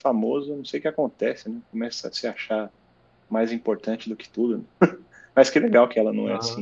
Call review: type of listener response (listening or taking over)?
listening